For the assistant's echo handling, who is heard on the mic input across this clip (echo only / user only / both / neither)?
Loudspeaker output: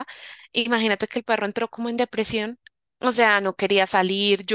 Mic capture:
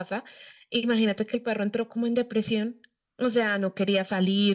echo only